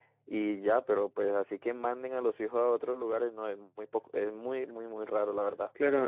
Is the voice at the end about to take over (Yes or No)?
Yes